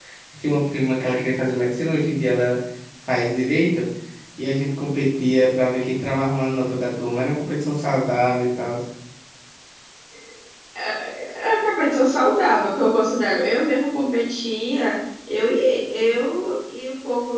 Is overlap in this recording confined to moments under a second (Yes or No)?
Yes